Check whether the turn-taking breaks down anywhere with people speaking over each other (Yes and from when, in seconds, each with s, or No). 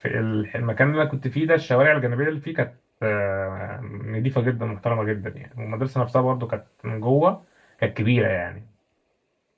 No